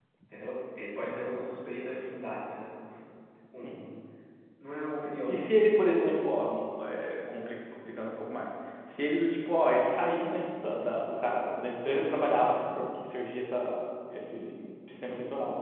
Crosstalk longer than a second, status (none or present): none